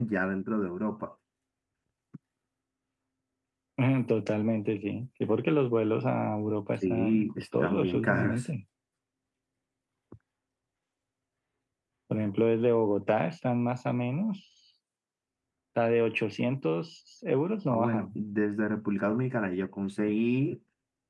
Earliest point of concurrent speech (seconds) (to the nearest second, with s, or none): 7 s